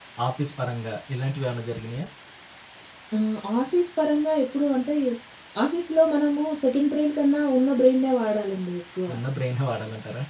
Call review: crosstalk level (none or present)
none